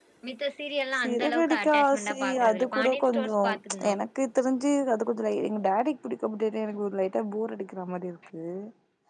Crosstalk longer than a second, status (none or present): present